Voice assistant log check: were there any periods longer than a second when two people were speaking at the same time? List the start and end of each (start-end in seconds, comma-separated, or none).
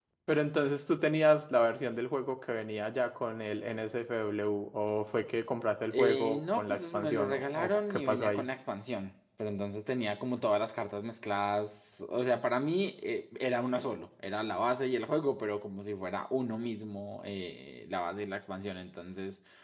5.9-8.5